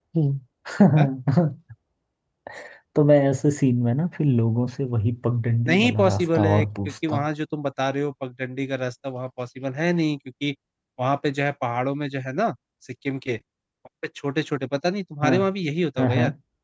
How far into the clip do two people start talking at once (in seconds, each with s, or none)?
5.7 s